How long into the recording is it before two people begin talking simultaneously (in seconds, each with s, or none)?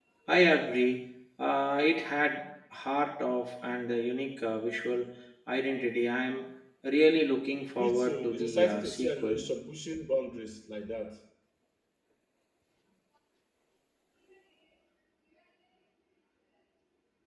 7.8 s